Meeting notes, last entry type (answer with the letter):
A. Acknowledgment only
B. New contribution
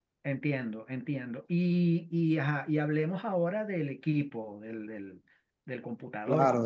B